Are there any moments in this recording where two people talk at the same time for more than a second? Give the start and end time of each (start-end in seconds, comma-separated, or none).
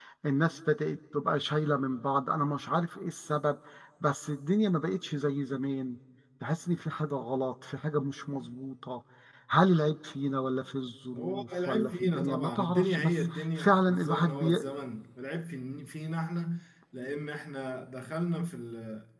11.1-14.7